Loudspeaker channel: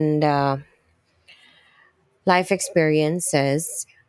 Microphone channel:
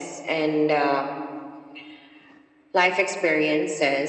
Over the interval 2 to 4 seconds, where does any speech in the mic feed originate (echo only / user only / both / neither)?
echo only